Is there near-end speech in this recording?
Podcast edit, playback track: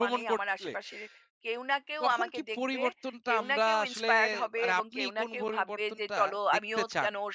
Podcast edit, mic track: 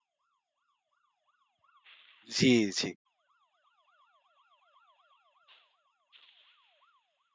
Yes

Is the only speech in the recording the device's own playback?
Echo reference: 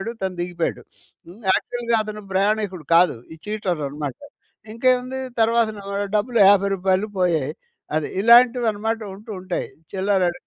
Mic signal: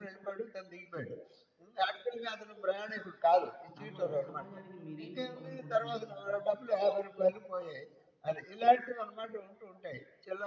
No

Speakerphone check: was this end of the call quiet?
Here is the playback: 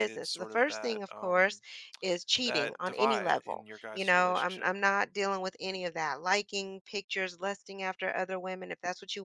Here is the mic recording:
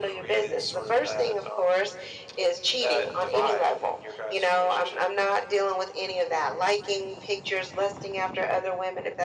Yes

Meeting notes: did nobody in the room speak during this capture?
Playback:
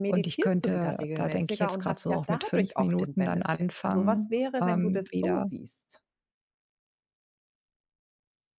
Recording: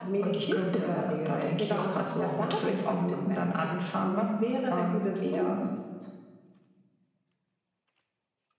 Yes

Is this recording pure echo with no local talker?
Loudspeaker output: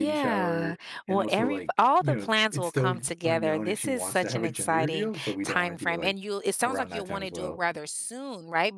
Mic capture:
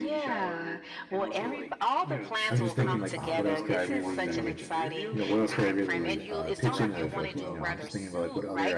No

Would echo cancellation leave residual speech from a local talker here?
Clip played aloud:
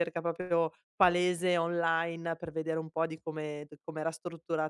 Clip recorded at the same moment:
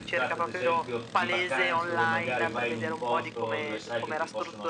Yes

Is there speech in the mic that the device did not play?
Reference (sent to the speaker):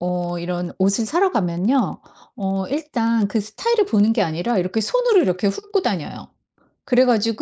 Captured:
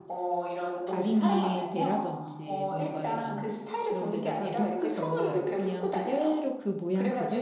Yes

